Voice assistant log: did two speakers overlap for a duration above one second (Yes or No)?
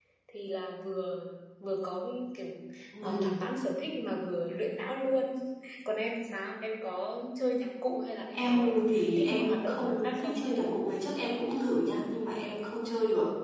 Yes